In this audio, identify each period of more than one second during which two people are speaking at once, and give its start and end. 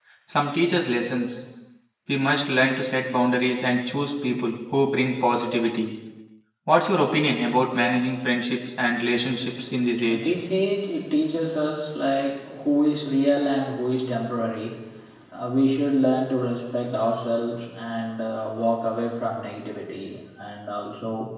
none

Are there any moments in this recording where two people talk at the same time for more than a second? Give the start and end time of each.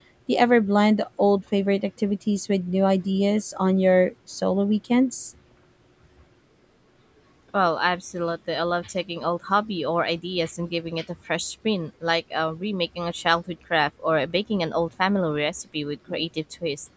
none

